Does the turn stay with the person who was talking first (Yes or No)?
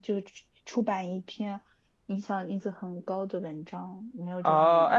No